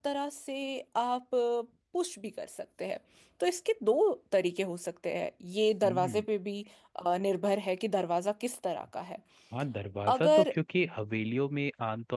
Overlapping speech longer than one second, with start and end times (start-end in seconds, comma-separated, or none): none